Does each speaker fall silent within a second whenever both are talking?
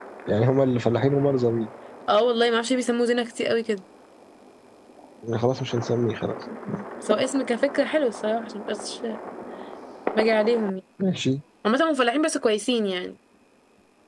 Yes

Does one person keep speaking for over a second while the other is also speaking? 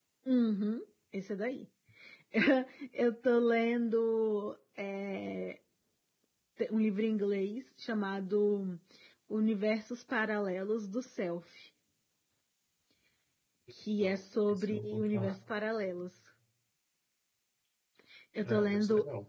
Yes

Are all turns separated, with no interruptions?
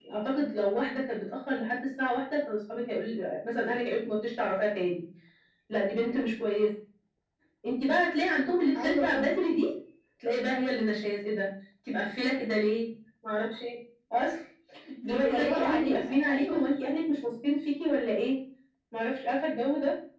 No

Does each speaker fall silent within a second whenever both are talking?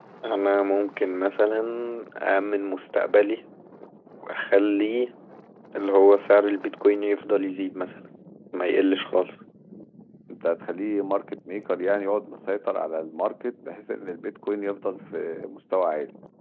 Yes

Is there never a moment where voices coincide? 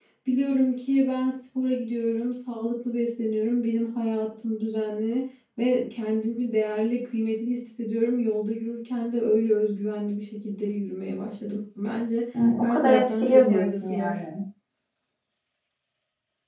No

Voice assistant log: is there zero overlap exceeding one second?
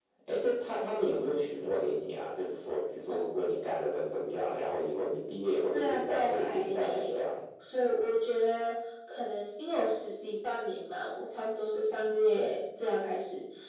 No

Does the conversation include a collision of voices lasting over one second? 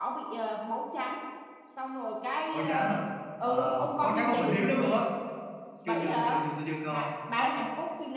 Yes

